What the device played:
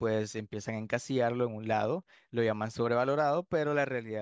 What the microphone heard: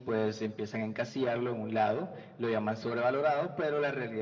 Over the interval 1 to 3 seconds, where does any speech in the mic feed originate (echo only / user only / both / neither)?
echo only